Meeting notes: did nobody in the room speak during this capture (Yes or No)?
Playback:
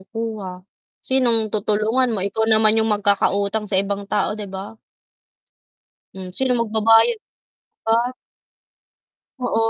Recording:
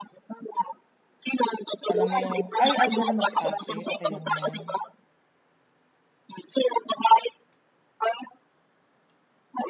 No